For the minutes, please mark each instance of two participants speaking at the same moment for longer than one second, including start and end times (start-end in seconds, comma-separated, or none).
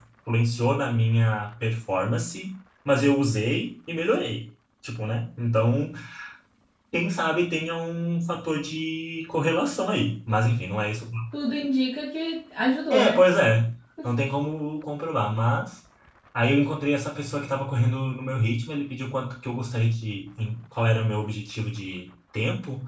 none